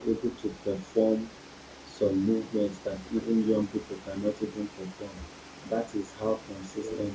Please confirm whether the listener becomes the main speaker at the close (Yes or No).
No